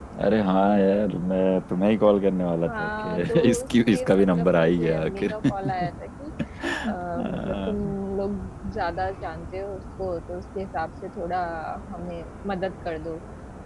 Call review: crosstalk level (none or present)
present